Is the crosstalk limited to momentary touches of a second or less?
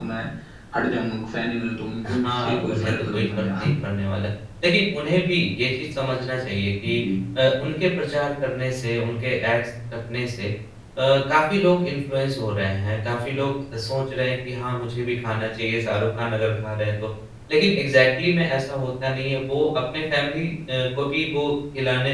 No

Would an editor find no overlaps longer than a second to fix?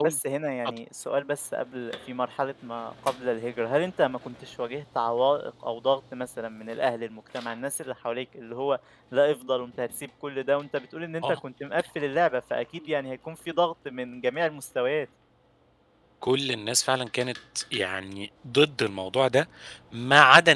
Yes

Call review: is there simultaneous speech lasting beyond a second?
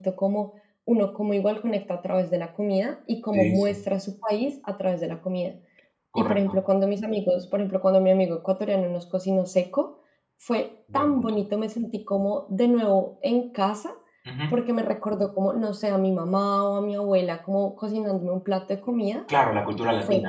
No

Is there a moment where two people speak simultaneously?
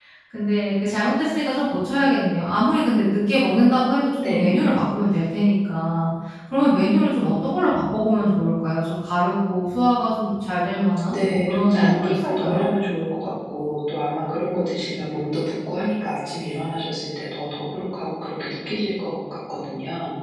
Yes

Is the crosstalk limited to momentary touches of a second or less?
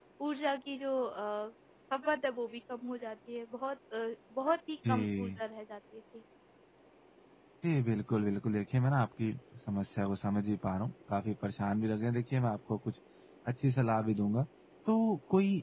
Yes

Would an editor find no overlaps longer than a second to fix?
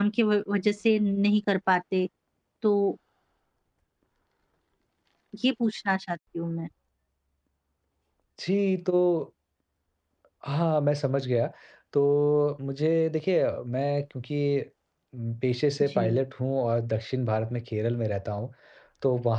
Yes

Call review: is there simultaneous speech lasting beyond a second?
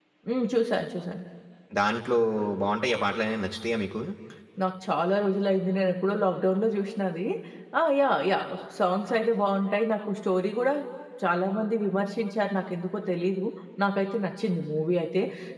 No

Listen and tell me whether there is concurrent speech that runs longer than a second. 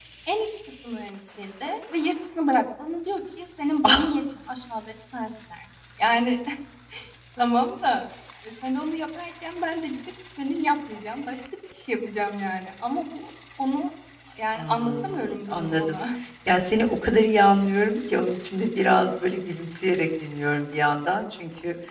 Yes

